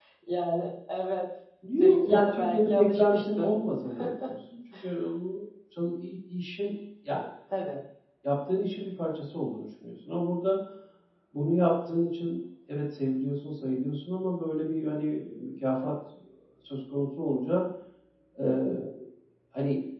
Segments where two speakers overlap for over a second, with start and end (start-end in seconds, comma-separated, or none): 1.8-3.6